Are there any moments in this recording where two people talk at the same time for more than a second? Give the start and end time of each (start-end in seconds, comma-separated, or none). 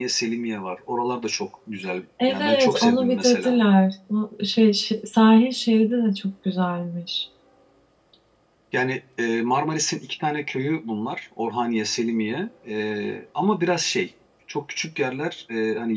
2.3-3.6